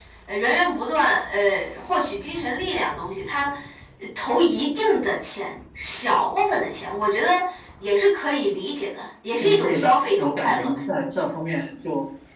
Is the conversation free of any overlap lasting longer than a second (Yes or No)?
No